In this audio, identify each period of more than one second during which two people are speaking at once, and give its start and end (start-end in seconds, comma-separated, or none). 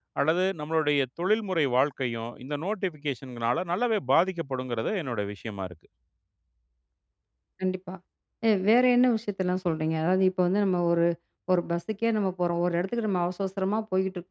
none